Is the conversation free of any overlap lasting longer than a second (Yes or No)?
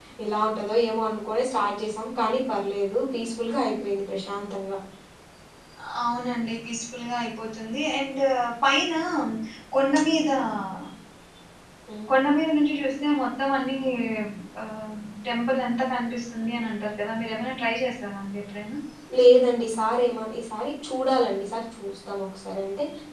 Yes